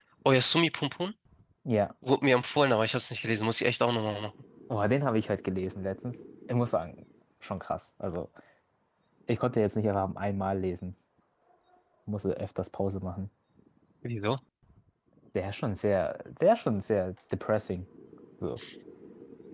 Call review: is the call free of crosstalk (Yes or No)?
Yes